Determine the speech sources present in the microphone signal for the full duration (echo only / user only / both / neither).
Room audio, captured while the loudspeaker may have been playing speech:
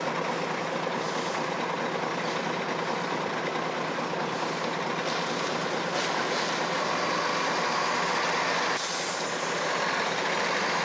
neither